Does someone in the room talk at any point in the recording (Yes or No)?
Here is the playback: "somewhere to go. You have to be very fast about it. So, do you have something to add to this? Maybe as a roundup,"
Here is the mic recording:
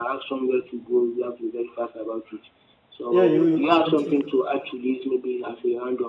Yes